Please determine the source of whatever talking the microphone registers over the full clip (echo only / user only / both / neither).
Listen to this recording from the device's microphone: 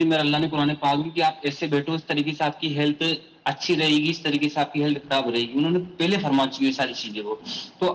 echo only